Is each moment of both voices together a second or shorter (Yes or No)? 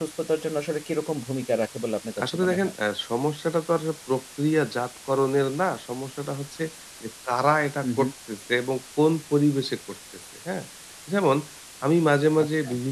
Yes